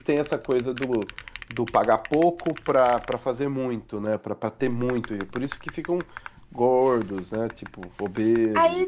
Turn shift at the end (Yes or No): Yes